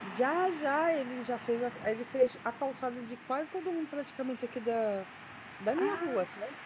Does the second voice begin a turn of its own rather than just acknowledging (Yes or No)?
Yes